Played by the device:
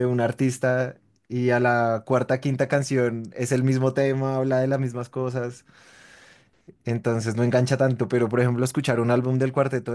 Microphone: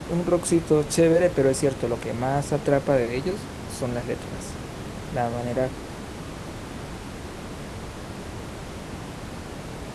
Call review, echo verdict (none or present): none